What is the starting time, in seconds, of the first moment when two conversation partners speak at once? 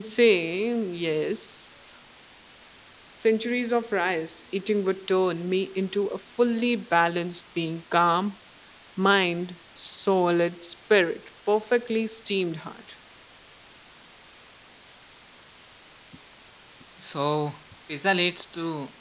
none

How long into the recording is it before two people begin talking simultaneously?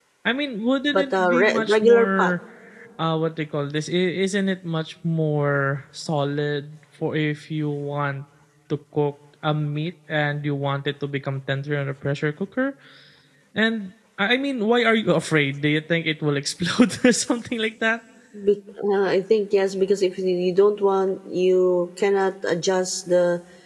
1 s

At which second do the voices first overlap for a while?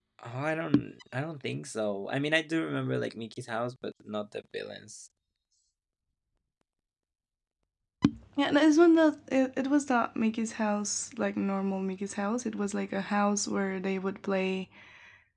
none

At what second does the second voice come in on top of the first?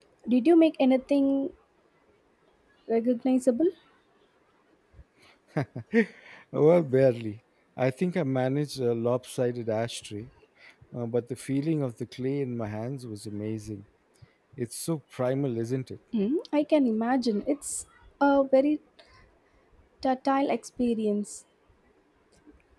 none

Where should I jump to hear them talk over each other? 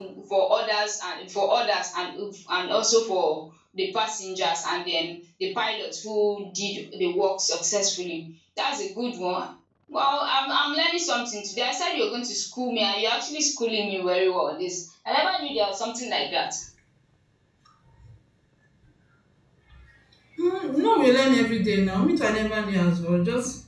none

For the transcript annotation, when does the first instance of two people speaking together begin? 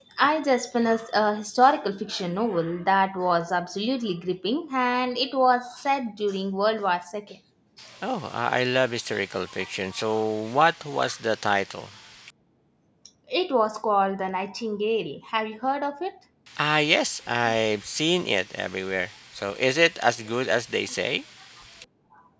none

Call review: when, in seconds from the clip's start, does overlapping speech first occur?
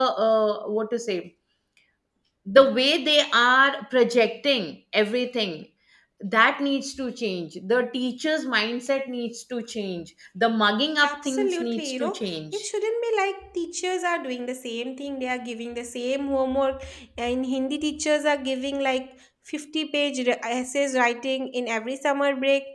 11 s

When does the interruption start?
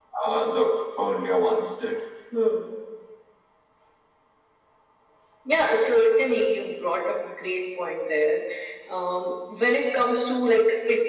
none

